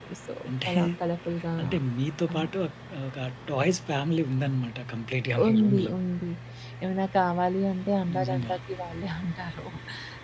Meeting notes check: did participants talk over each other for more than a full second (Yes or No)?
No